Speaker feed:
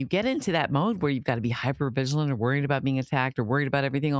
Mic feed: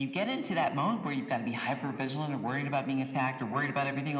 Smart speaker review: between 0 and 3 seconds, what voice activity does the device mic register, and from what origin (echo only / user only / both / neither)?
echo only